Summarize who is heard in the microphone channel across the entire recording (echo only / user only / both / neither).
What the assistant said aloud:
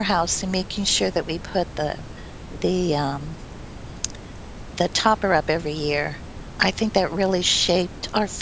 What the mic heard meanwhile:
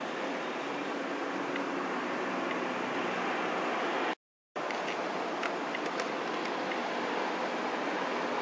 neither